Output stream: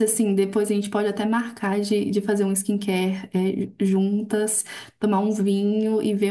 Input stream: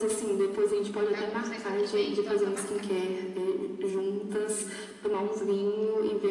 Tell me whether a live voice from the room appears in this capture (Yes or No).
Yes